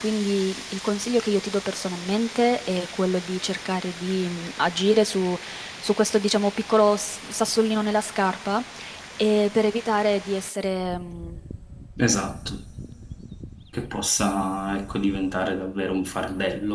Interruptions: none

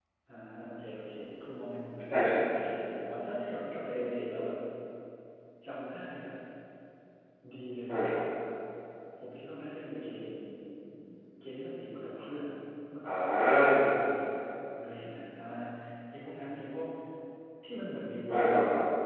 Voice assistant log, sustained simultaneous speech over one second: none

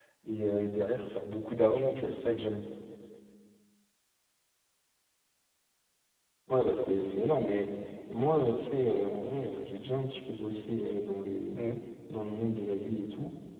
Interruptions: none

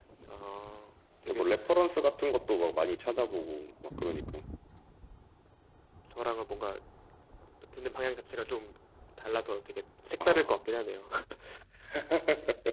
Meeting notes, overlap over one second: none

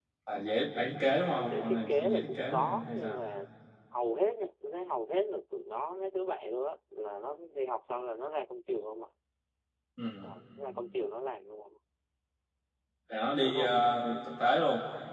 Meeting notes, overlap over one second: present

